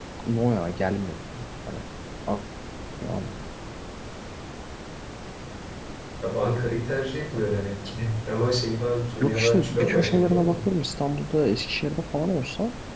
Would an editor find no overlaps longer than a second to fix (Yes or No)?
No